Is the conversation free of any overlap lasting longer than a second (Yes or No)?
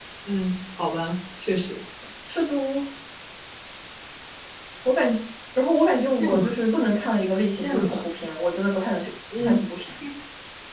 Yes